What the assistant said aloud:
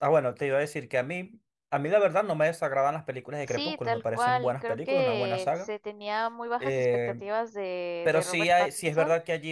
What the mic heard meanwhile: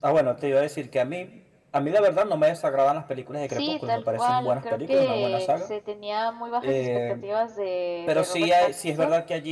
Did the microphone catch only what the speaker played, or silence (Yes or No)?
Yes